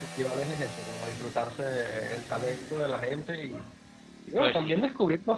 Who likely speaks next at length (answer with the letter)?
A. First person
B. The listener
A